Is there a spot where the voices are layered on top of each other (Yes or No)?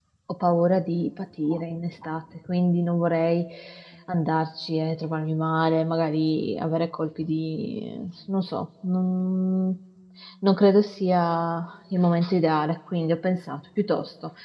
No